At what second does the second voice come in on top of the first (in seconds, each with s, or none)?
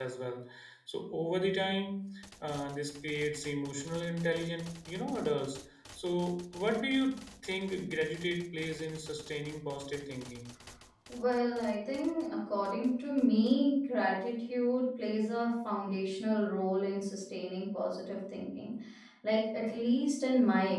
none